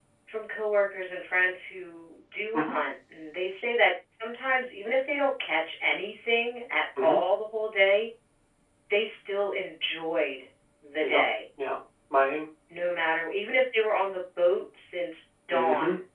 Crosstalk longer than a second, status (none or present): none